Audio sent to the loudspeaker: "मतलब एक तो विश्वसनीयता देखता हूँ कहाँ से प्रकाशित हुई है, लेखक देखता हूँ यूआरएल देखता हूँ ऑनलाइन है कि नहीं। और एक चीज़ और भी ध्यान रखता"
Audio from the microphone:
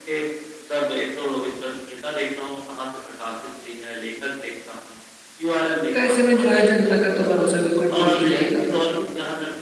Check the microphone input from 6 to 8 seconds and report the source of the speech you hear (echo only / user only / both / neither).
both